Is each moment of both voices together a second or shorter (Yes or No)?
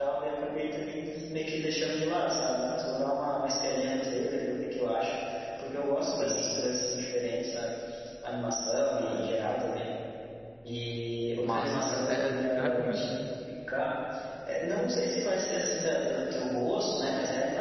No